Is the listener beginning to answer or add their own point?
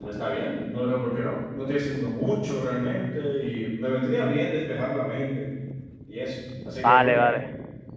Yes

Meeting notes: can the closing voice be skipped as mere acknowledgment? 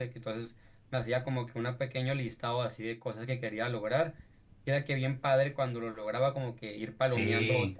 Yes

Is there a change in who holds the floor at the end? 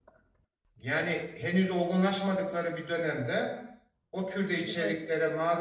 No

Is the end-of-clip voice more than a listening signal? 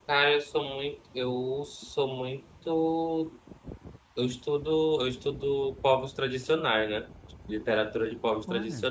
No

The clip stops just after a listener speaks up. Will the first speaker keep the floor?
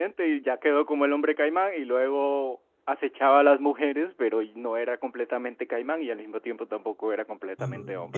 No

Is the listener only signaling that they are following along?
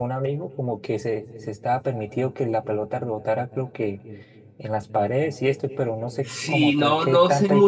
No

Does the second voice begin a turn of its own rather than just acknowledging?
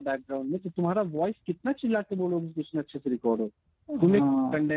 No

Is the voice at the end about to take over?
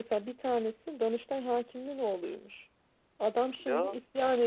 No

